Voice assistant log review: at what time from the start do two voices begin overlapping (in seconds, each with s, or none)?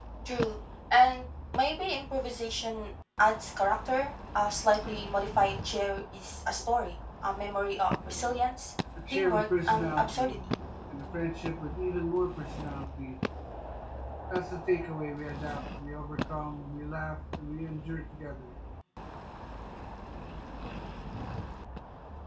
9.0 s